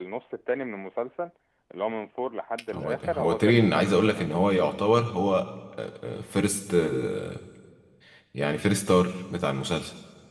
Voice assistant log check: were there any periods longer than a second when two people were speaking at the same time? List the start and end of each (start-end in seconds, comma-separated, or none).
2.7-4.3